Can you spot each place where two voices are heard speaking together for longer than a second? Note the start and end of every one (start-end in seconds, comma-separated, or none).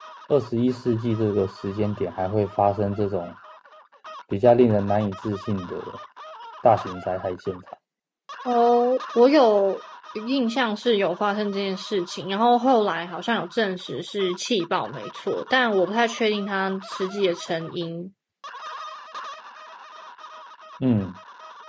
none